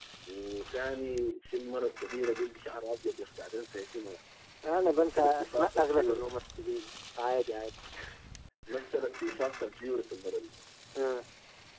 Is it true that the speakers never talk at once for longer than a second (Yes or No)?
No